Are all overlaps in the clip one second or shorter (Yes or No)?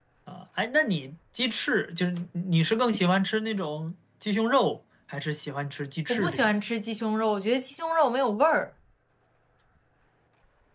Yes